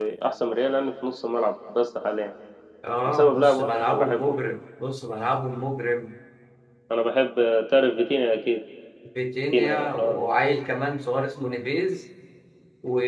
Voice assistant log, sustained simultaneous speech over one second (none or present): present